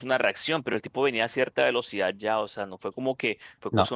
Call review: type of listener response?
listening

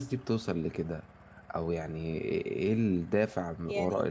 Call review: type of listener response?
listening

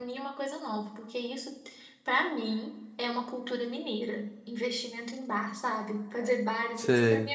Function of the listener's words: listening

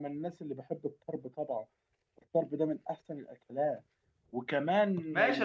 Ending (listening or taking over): taking over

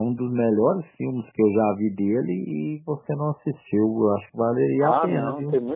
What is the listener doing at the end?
taking over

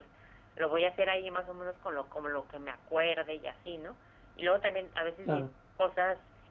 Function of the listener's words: listening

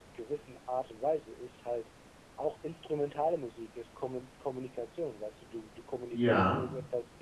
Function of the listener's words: listening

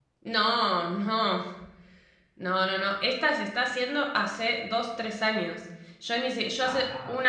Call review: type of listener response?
listening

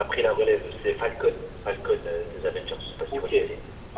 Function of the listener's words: taking over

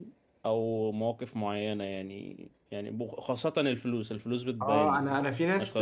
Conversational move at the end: taking over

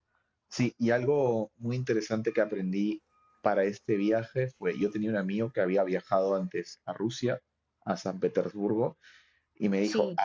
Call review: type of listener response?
listening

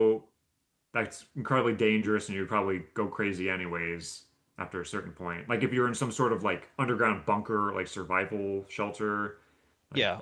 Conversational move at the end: taking over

